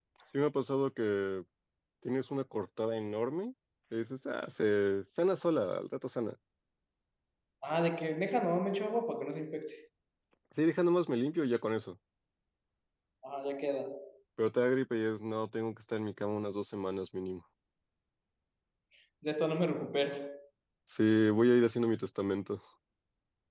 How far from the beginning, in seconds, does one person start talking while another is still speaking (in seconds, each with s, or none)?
none